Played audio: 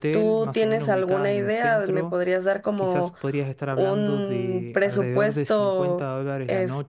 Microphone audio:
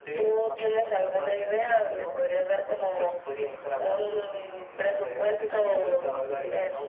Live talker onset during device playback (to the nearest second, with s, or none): 5 s